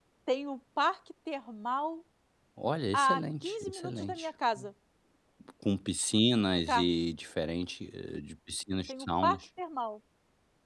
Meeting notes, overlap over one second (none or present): present